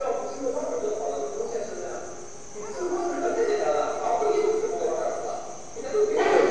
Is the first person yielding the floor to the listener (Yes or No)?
Yes